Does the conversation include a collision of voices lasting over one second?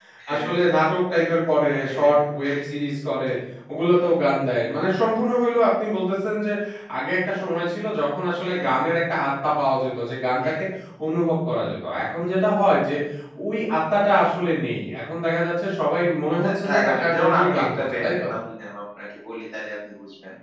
Yes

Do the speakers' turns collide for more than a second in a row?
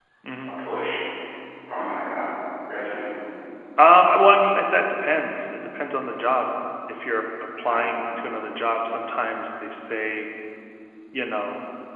No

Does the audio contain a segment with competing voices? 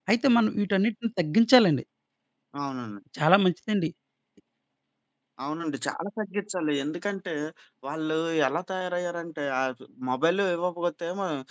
No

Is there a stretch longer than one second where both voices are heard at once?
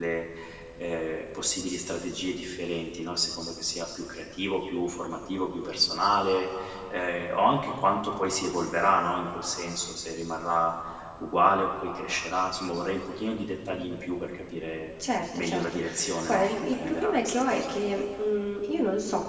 Yes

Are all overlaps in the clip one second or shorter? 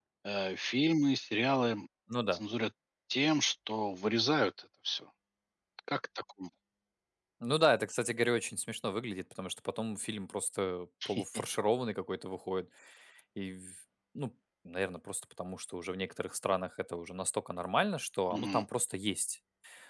Yes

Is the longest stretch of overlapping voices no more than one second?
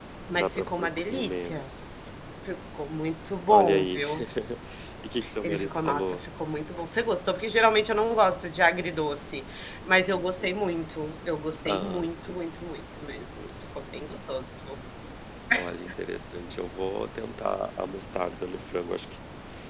No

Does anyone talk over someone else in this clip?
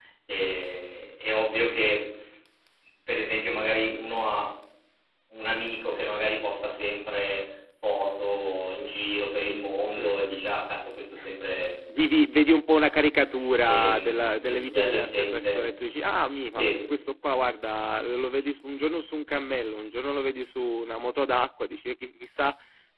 Yes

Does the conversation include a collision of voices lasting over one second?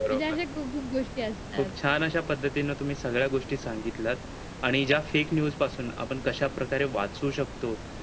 No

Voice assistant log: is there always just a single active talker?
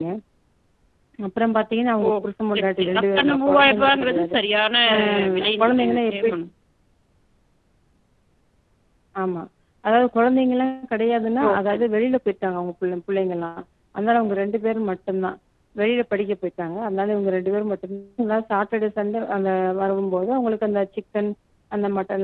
No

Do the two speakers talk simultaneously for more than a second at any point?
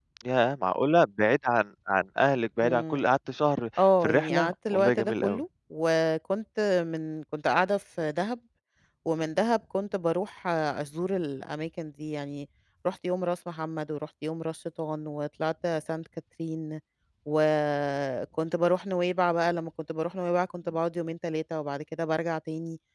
Yes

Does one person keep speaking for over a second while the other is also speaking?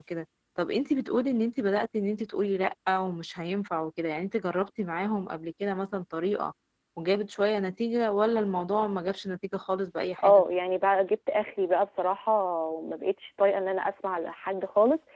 No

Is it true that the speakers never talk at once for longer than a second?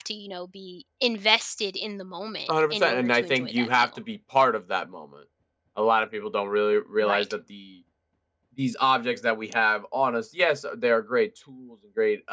No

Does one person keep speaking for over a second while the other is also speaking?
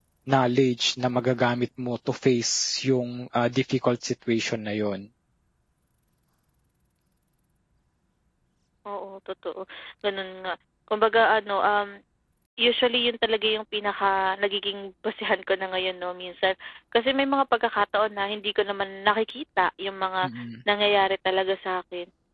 No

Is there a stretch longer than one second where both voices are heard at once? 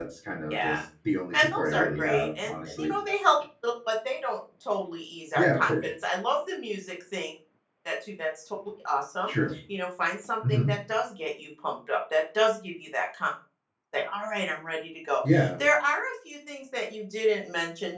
Yes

